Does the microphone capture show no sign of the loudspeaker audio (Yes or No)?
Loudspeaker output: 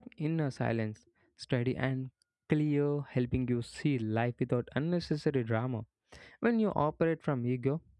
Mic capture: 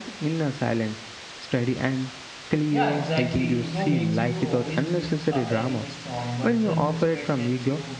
No